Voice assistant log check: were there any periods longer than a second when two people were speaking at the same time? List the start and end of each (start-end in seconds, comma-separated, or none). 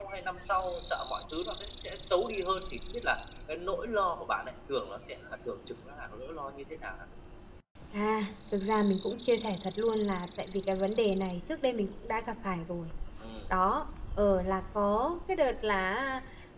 none